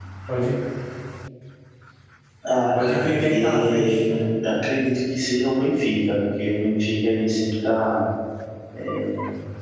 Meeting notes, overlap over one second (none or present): present